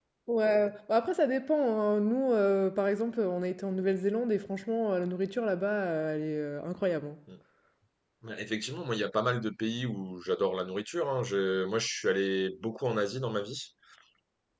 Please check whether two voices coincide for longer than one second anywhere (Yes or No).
No